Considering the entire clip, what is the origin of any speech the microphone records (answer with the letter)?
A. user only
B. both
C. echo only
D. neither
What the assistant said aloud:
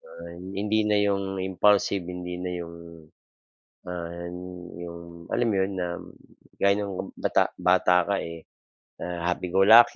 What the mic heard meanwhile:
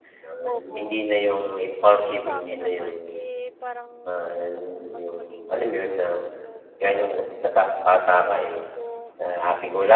B